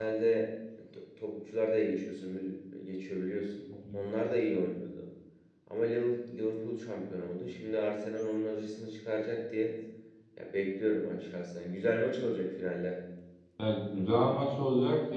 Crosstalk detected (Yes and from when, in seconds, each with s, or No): No